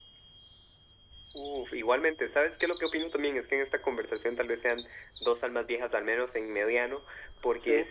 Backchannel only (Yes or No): Yes